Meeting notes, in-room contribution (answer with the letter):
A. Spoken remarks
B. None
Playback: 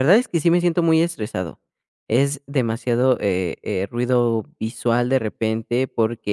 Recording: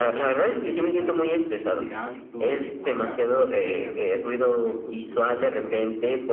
A